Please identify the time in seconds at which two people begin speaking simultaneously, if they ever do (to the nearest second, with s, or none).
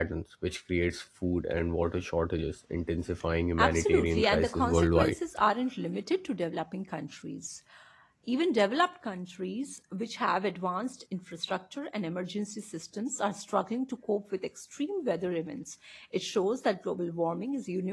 4 s